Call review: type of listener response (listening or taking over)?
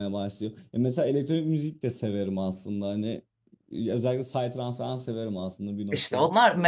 taking over